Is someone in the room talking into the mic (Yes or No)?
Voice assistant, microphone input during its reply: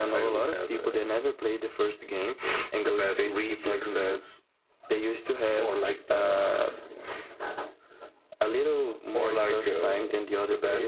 No